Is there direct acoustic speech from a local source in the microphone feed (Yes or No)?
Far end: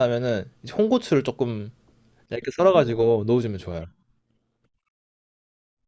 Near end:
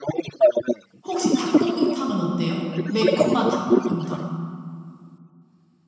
Yes